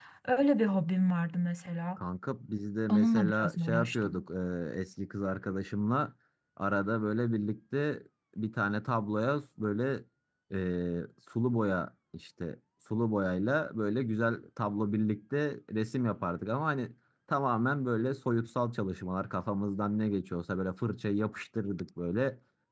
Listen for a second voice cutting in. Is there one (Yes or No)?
Yes